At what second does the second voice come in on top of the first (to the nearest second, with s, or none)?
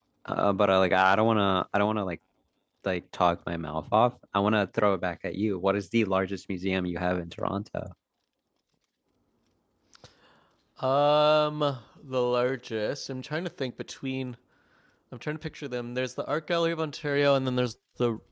none